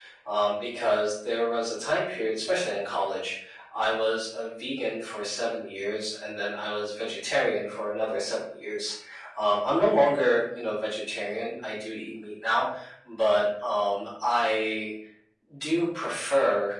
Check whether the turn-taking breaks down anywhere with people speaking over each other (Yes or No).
No